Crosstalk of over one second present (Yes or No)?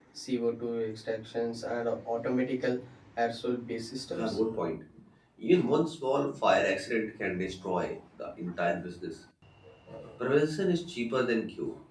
No